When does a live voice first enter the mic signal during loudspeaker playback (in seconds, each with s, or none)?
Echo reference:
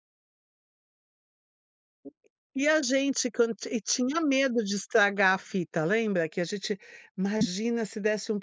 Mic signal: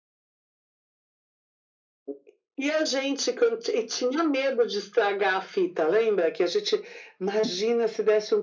none